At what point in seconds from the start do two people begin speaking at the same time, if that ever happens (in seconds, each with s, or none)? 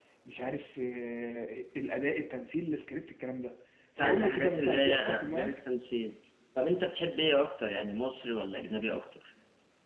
4.0 s